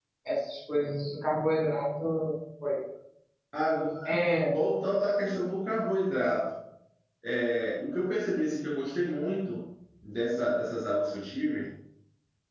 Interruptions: none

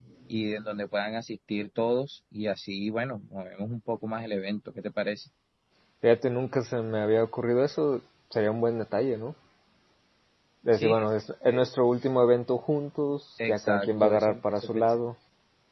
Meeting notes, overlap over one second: present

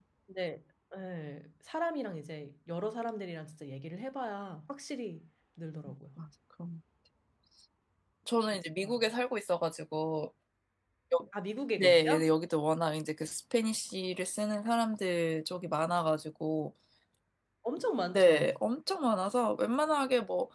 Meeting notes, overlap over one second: none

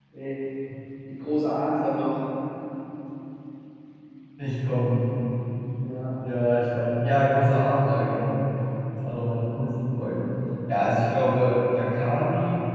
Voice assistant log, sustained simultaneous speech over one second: none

